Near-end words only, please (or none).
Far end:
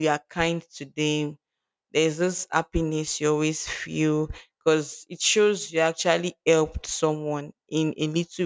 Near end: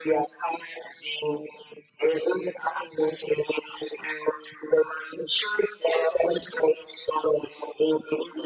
none